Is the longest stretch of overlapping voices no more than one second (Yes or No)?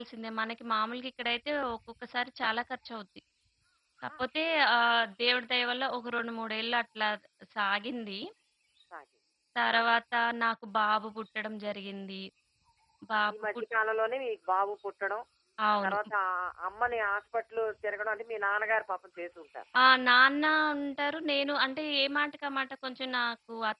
Yes